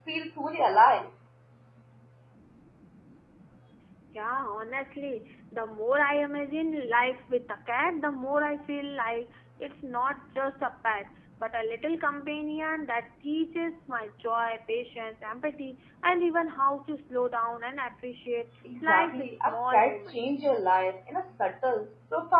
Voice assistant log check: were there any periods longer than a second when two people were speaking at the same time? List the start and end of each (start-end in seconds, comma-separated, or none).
18.8-20.4